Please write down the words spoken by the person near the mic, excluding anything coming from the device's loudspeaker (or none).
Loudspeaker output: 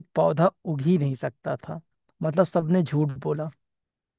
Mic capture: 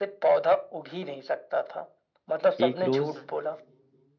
एक रोज